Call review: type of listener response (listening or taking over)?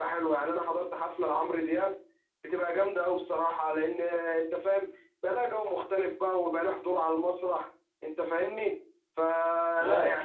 listening